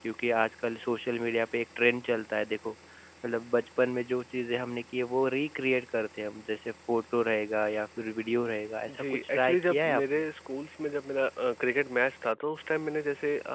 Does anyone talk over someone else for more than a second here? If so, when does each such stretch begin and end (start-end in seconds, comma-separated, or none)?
8.9-10.3